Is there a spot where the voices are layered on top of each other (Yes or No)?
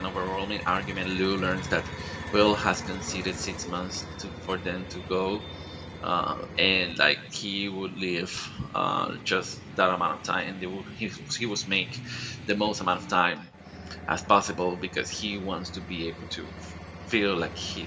No